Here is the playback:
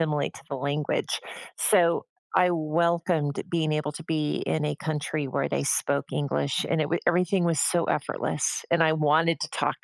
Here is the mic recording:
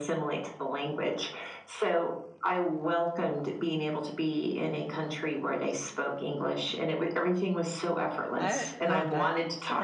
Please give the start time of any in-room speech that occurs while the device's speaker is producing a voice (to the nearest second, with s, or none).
8 s